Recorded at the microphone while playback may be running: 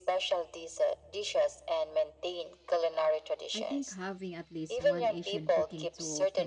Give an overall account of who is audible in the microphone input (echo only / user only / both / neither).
both